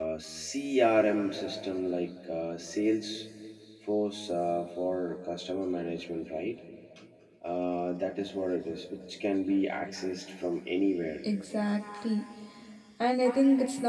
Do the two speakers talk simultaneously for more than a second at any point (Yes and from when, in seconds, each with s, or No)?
No